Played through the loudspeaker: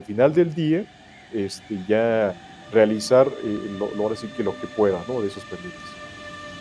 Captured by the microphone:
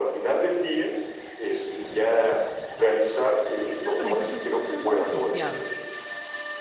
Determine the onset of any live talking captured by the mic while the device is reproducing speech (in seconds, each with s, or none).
3.6 s